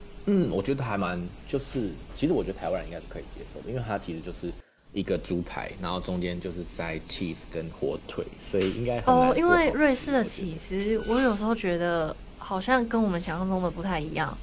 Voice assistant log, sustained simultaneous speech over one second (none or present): present